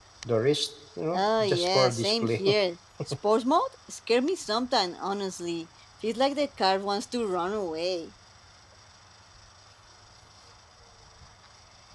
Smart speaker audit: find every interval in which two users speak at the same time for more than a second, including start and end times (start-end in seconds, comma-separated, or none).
1.1-2.4